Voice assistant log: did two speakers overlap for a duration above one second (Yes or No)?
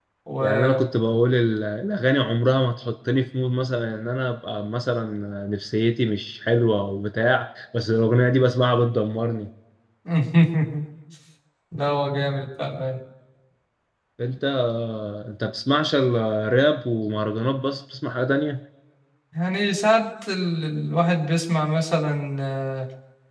No